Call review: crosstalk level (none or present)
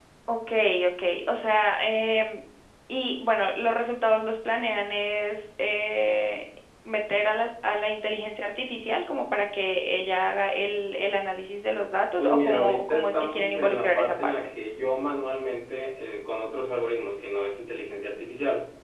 present